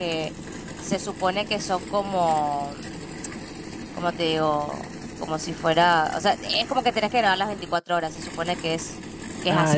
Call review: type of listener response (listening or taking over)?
taking over